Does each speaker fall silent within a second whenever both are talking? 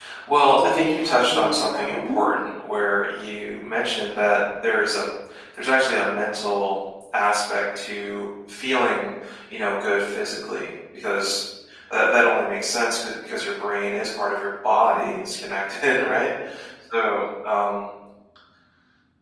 No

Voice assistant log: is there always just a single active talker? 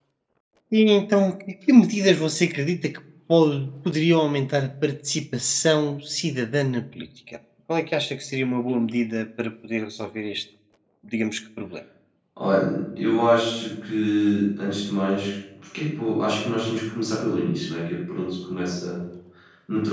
Yes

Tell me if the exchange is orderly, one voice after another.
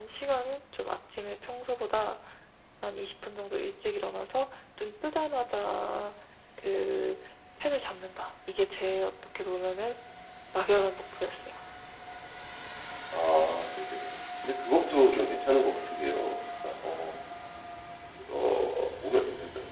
Yes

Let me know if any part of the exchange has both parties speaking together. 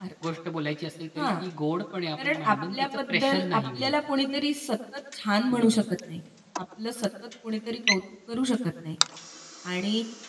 Yes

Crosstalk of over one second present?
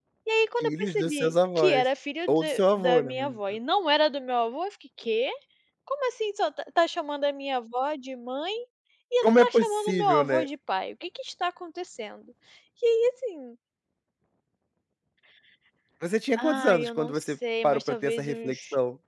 Yes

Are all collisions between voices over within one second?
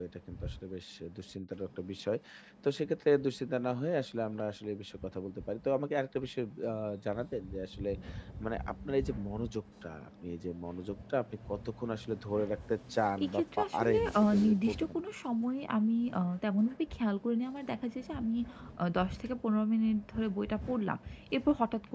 No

